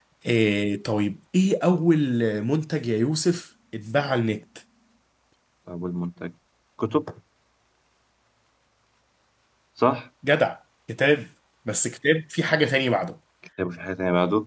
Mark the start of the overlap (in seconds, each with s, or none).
none